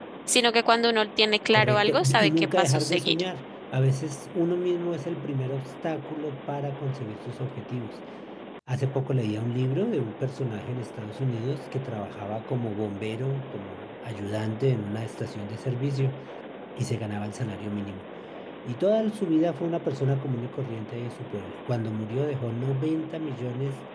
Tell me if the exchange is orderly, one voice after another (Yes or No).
No